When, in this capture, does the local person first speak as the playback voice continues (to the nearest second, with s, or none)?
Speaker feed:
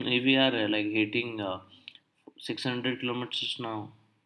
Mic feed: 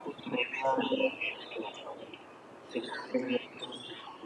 none